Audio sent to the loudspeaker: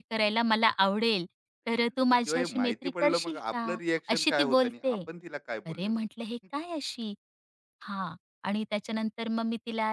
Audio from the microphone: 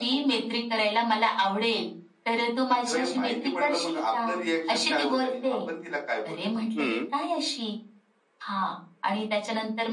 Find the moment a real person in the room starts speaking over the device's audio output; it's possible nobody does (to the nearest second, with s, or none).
7 s